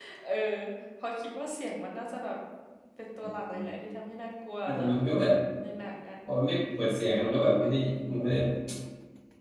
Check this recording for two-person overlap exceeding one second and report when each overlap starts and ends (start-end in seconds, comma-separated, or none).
none